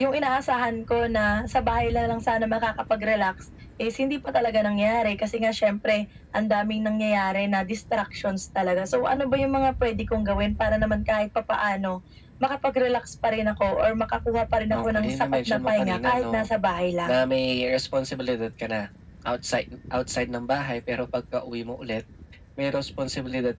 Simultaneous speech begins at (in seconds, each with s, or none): 14.7 s